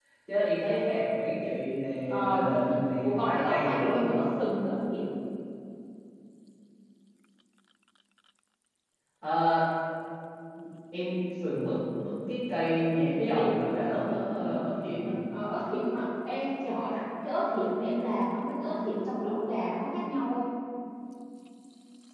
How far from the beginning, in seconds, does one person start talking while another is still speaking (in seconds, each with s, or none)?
2.1 s